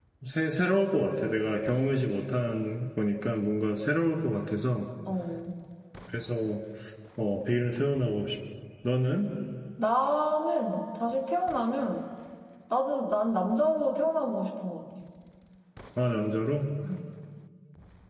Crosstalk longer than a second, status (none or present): none